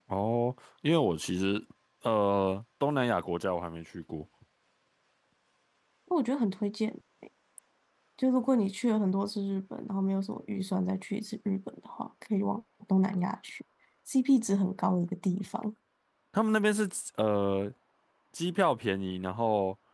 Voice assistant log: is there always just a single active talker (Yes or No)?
Yes